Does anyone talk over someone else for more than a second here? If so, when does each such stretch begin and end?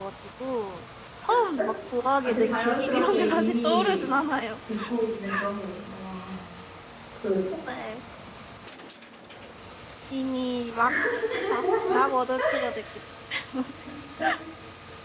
2.2-4.1

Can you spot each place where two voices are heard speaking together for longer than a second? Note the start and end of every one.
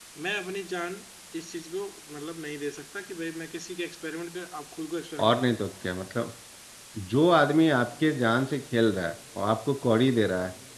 none

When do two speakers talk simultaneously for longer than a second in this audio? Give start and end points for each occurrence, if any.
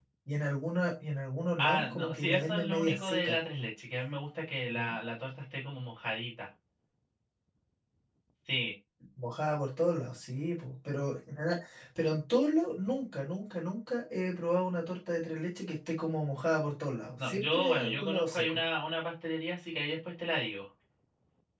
1.6-3.4, 17.2-18.6

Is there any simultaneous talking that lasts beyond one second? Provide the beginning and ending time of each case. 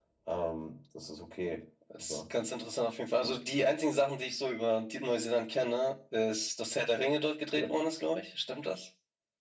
none

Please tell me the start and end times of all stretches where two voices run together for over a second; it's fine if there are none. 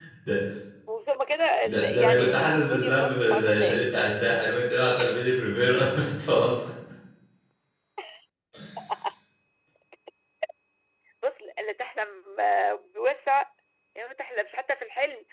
1.6-3.9

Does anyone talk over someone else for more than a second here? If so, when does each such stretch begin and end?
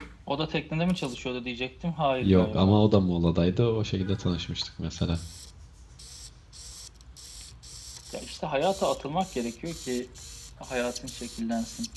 none

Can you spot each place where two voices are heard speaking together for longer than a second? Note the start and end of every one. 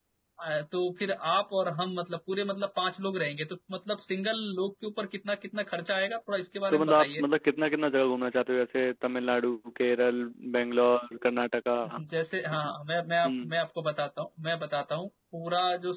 none

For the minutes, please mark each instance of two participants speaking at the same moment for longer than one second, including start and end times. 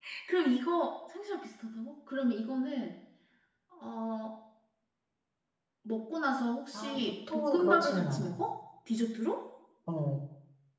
6.7-8.4

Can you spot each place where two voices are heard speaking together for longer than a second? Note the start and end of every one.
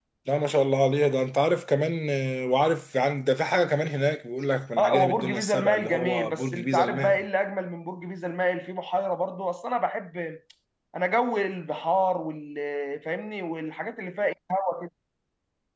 4.8-7.3

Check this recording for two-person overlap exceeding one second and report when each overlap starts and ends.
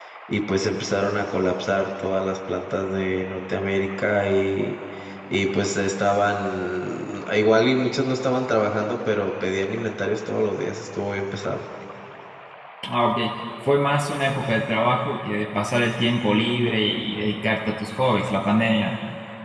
none

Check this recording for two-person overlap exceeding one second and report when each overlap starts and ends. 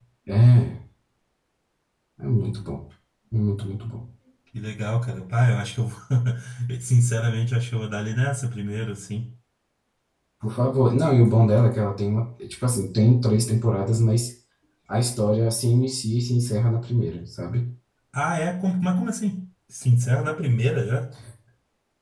none

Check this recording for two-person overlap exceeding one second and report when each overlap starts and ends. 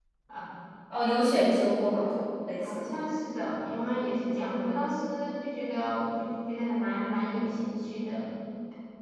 none

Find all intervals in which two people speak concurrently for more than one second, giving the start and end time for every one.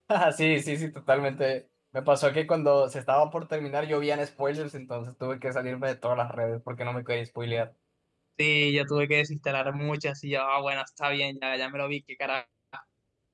none

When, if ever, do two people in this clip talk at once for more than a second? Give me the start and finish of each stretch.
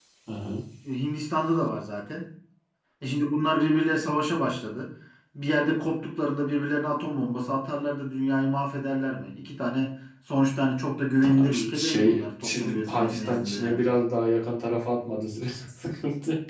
11.2-13.8

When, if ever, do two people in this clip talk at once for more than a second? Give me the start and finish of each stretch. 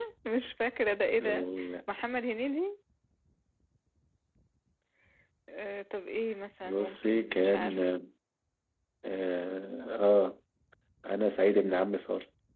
6.6-7.8

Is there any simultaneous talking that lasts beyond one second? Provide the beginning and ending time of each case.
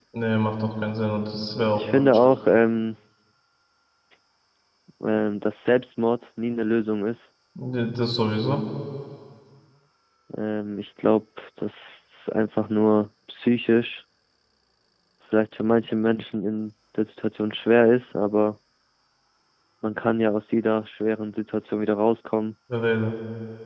none

